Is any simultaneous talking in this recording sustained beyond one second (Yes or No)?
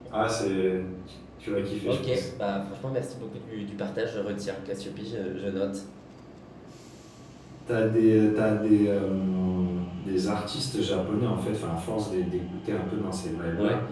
No